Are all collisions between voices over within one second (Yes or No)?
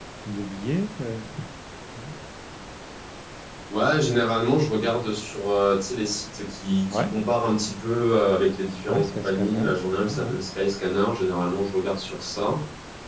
No